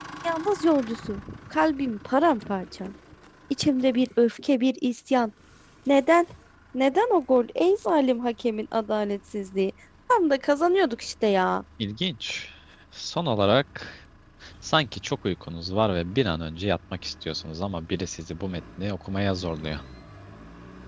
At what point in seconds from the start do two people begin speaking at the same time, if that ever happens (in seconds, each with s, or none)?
none